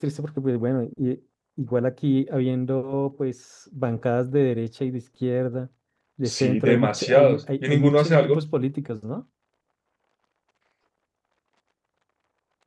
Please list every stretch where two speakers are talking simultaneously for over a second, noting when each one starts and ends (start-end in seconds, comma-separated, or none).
6.2-8.4